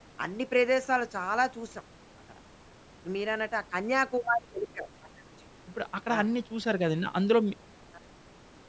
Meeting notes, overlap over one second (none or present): none